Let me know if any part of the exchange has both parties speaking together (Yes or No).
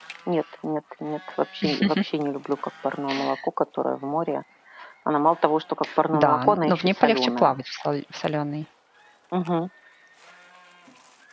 Yes